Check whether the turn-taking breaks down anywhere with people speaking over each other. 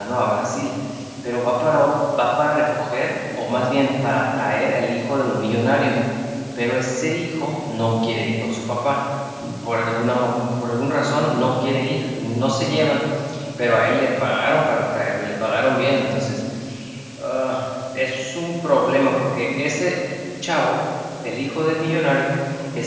No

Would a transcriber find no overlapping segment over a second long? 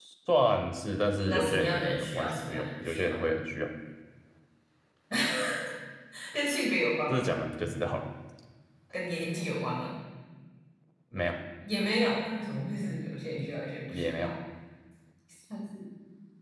No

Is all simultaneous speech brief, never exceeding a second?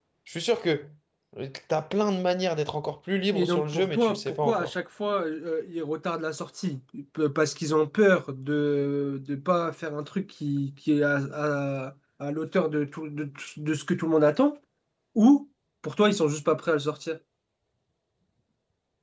No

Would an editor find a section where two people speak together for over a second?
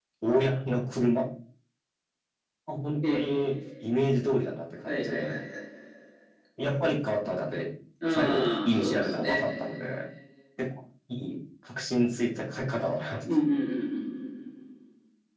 Yes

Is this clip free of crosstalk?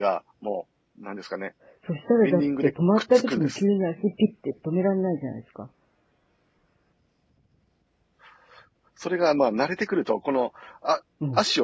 No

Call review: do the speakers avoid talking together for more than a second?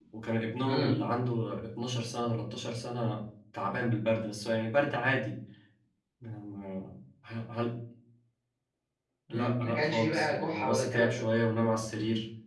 No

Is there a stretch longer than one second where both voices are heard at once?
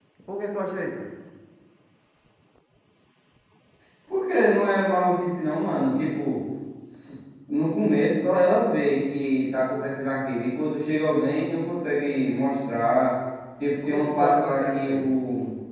Yes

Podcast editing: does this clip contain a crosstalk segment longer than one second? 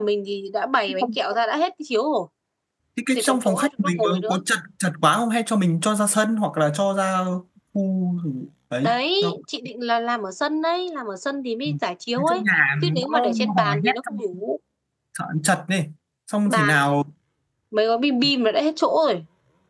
Yes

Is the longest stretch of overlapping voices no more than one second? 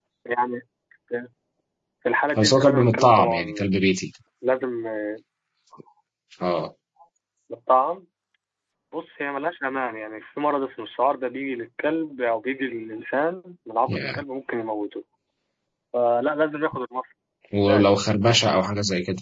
No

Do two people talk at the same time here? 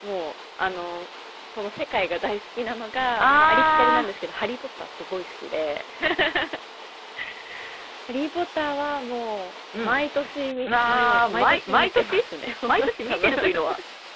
Yes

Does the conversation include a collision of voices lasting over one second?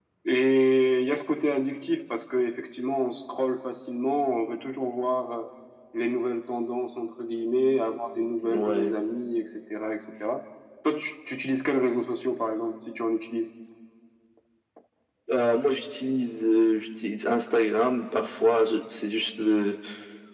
No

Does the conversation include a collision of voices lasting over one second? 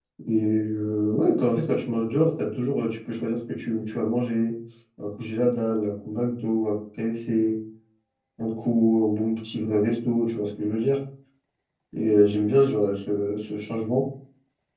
No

